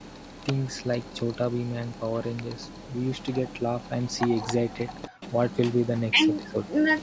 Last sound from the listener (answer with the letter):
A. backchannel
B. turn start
B